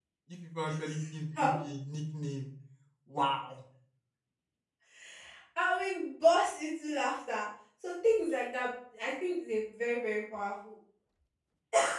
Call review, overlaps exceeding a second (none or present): none